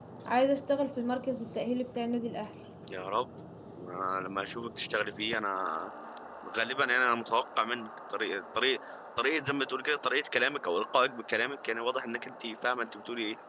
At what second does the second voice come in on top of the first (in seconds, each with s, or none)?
none